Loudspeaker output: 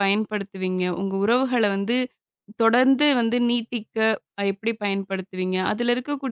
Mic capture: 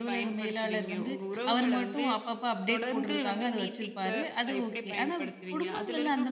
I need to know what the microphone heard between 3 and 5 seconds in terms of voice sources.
both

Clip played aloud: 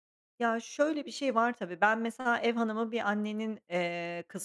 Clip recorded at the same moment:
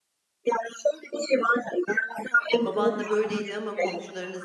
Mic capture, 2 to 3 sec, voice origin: both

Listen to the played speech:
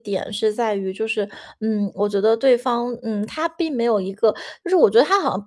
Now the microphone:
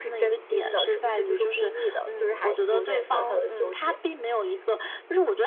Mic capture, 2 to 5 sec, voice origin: both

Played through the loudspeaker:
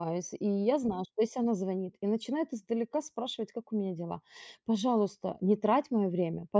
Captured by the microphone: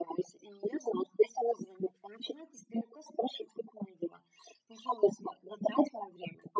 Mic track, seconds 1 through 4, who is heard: echo only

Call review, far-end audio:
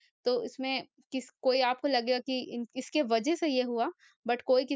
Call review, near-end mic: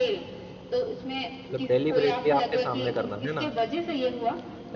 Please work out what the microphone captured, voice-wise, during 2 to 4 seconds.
both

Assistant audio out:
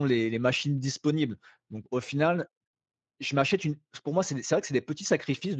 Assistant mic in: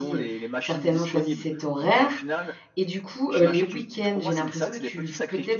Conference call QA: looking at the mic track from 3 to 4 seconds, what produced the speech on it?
both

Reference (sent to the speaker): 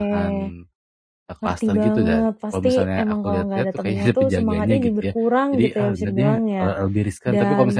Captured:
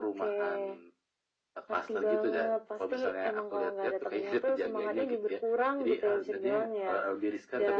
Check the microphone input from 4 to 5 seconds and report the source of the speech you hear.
echo only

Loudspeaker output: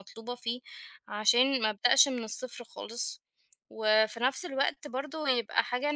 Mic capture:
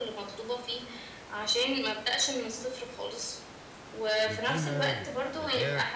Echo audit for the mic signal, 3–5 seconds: both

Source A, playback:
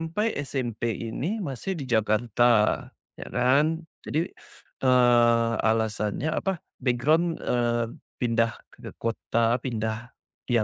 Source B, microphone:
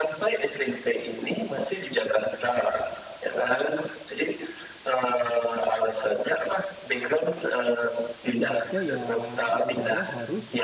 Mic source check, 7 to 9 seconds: both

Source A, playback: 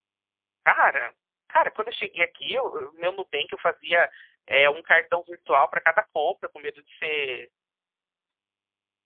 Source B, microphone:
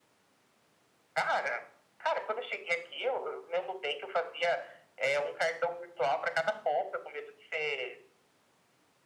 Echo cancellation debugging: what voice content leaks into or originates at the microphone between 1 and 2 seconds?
echo only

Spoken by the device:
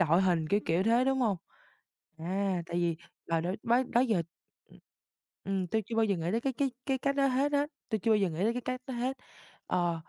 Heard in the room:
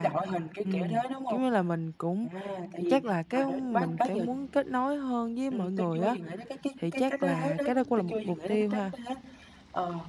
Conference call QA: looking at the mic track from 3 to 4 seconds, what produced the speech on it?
both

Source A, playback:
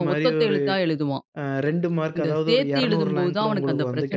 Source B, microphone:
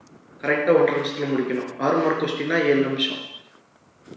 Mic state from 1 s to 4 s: user only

